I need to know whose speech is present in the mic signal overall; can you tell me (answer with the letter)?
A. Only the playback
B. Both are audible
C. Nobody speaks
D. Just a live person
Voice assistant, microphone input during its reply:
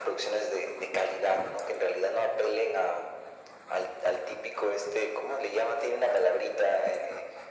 A